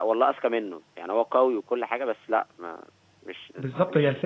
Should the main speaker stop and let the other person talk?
Yes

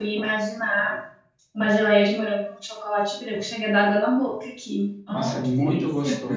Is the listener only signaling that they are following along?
No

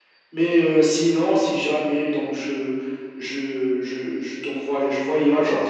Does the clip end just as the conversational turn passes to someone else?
No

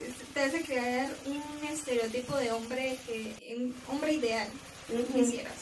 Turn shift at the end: Yes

